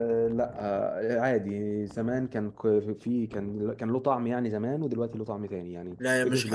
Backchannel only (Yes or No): No